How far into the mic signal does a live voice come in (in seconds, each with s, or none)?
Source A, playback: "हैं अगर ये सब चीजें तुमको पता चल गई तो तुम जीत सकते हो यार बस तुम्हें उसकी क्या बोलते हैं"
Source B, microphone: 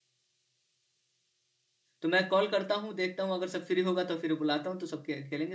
2.0 s